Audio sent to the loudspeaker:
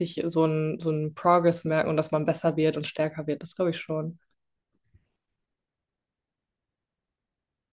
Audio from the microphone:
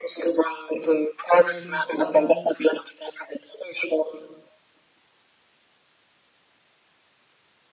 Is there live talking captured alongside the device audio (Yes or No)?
Yes